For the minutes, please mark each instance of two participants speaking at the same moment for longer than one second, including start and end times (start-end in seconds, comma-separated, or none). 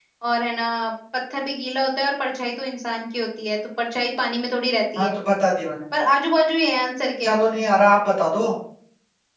none